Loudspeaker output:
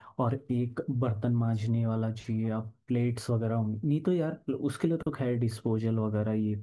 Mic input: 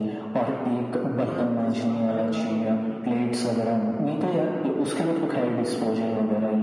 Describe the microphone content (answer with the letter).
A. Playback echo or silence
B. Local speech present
B